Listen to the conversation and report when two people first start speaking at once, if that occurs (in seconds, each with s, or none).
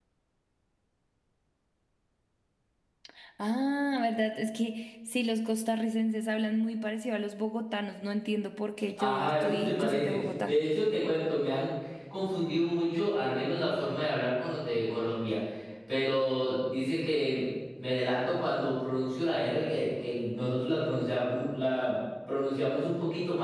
9.0 s